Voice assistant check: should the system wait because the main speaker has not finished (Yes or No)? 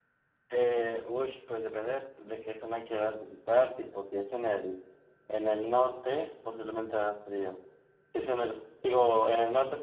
Yes